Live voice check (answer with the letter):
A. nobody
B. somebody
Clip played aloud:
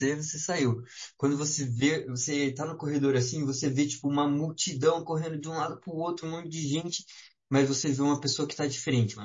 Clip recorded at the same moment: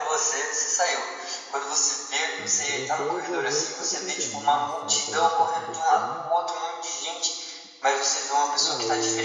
B